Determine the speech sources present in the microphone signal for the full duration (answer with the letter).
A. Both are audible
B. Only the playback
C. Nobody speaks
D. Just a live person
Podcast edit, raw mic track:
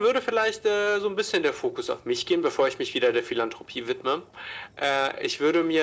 B